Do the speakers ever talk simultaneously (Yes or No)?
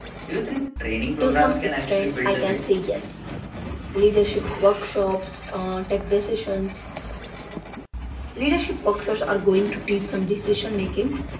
Yes